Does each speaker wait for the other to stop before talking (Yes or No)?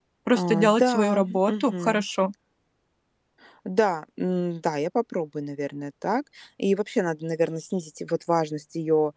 No